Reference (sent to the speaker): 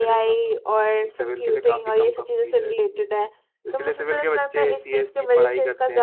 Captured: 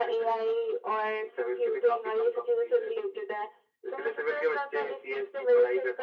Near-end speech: none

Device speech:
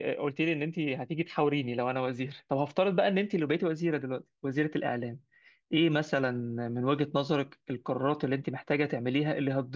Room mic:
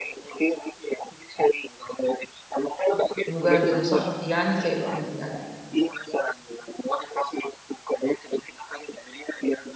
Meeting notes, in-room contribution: present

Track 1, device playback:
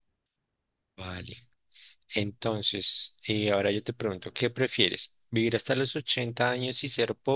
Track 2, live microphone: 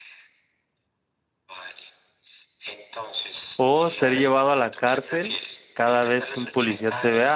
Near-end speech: present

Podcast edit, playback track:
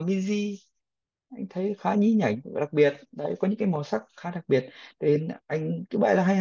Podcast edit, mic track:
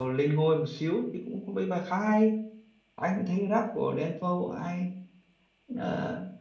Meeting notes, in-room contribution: present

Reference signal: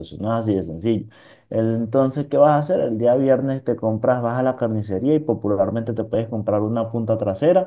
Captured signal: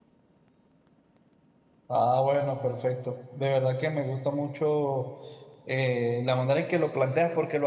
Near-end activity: present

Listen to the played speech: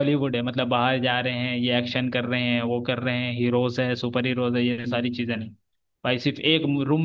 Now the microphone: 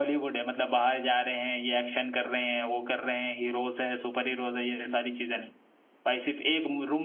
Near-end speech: none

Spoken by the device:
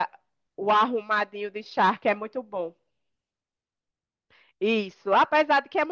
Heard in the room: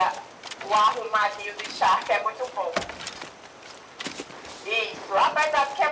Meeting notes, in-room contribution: none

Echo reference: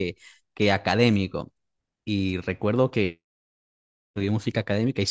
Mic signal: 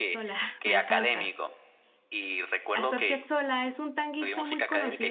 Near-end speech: present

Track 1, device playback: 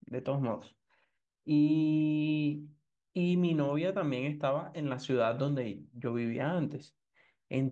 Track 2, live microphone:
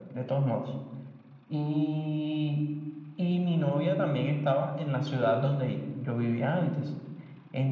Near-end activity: none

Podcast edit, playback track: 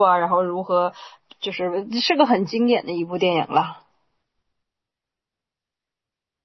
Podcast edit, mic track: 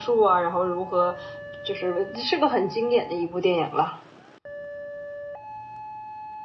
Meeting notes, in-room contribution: none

